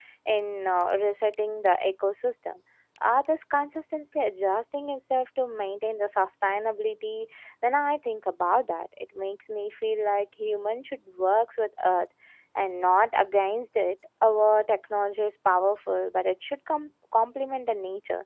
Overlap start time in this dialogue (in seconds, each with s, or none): none